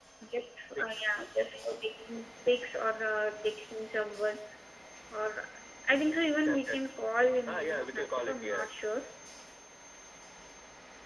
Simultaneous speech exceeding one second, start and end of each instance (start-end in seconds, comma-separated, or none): 7.5-8.7